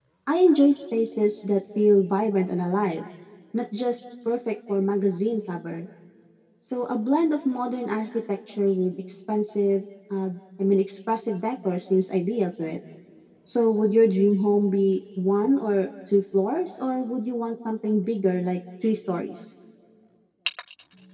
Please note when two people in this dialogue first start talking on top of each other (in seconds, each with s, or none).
none